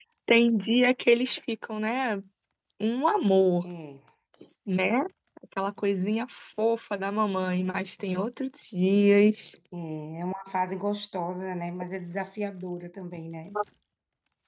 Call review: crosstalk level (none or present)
none